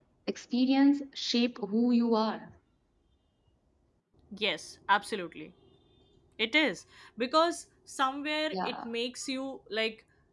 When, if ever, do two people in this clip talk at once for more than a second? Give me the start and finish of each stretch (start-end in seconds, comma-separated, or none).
none